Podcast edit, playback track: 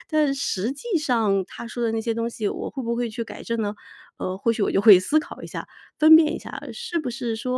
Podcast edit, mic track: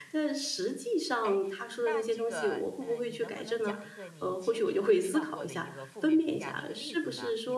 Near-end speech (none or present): present